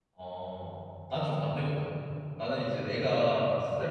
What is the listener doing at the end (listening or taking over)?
listening